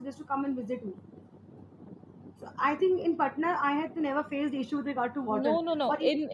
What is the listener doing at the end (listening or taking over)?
taking over